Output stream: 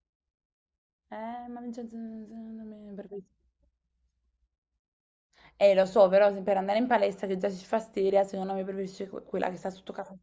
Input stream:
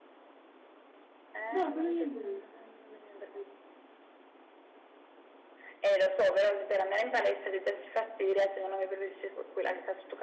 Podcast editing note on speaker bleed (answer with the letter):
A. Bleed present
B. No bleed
A